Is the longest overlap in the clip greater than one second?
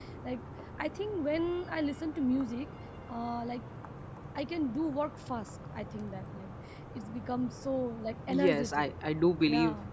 No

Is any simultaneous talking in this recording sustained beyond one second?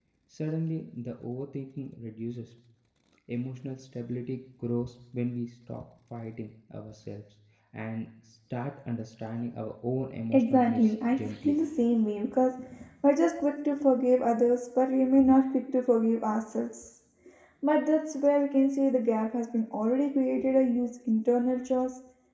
Yes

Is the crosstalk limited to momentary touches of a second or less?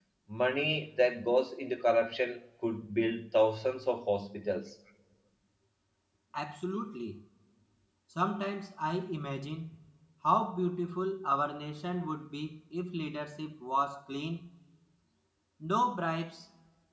Yes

